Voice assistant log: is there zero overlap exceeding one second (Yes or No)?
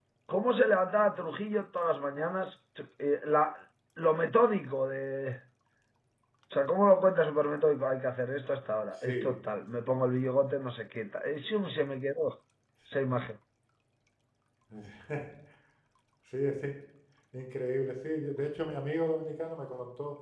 Yes